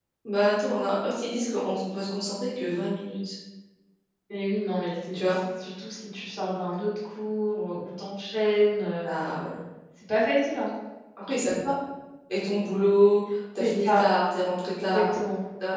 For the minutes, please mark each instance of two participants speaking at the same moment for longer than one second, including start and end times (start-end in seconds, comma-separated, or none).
none